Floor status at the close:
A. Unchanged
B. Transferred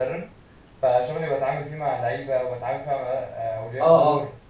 A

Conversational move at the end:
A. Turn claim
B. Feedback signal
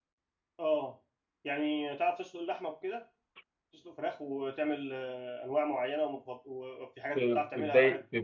A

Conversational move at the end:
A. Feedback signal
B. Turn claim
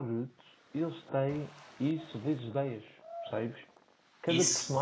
A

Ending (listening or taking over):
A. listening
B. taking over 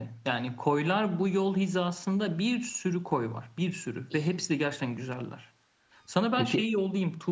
A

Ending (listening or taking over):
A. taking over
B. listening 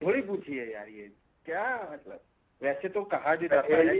B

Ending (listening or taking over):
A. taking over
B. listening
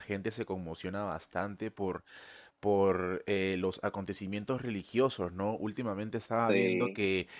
B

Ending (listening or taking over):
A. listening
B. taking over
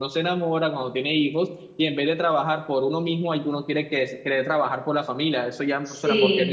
A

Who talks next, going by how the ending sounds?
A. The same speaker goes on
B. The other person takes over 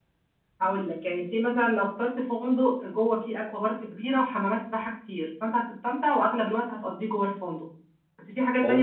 A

